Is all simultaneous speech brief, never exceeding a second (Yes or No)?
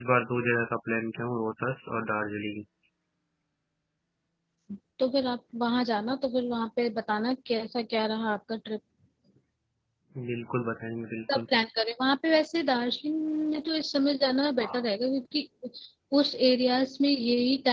Yes